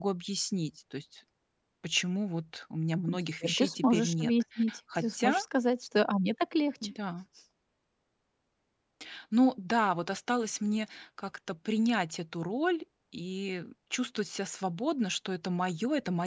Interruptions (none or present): present